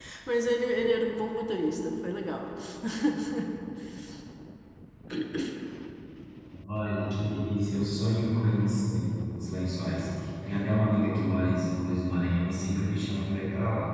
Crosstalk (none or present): none